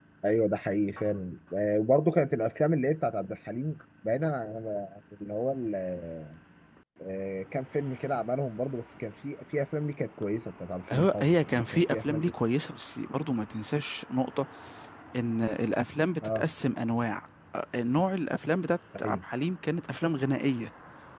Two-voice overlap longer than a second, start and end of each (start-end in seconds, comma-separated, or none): 10.9-12.3